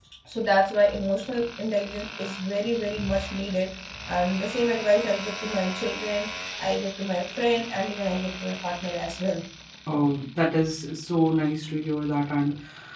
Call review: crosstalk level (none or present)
none